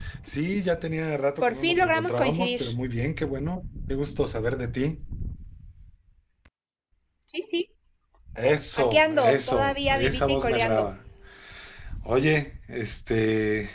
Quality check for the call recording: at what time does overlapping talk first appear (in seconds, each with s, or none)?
1.4 s